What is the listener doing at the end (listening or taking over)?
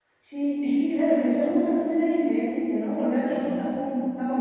listening